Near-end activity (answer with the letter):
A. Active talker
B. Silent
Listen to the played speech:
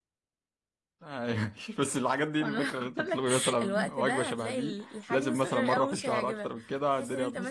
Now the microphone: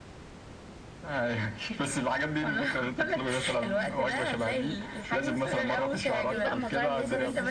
A